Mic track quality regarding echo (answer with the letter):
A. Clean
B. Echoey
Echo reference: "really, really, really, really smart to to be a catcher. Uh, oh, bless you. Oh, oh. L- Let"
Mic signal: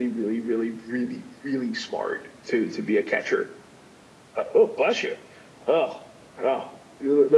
B